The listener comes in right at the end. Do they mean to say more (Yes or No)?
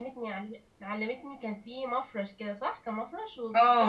Yes